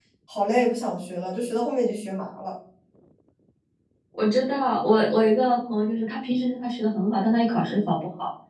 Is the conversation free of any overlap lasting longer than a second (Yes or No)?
Yes